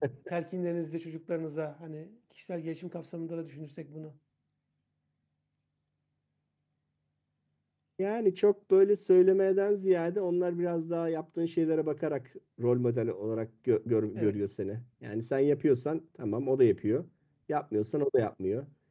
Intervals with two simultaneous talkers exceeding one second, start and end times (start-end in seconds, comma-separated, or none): none